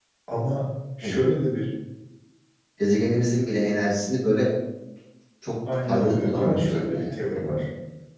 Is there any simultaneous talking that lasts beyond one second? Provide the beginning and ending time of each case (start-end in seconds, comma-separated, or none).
5.8-7.7